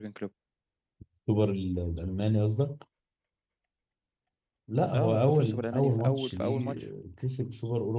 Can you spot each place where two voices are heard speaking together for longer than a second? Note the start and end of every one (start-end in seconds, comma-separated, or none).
5.0-6.8